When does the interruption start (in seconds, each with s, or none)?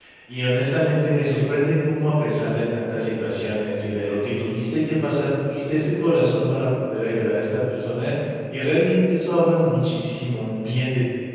none